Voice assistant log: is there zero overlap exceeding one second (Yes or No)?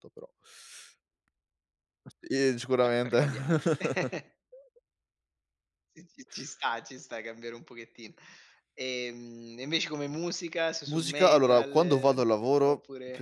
No